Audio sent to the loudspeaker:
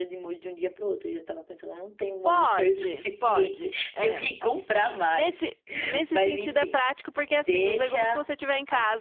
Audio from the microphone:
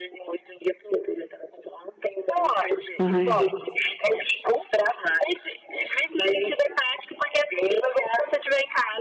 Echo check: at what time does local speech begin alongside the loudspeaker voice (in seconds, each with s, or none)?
3.0 s